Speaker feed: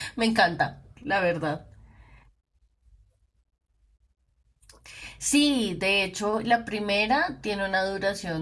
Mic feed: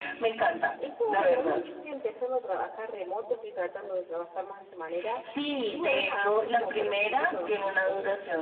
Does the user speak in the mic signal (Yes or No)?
Yes